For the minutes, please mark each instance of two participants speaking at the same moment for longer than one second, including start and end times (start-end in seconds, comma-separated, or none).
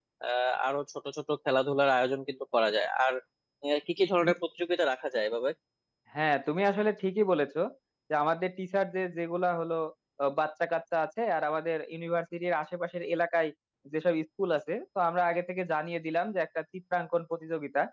none